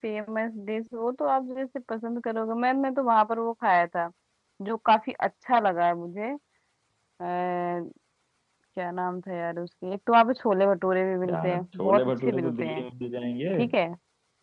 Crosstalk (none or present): present